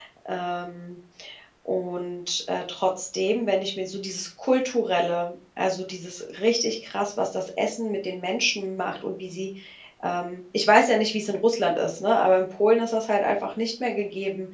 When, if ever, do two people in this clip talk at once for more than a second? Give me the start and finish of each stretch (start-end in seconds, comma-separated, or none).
none